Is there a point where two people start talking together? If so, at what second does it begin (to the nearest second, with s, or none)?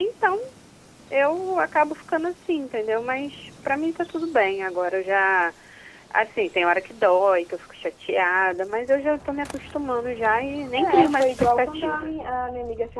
11 s